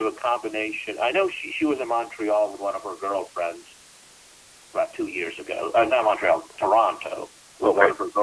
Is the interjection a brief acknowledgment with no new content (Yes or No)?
Yes